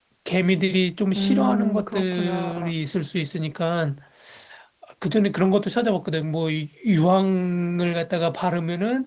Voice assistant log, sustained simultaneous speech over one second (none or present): present